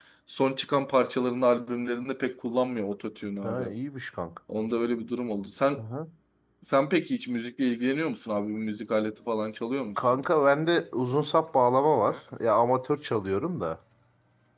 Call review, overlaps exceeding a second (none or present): none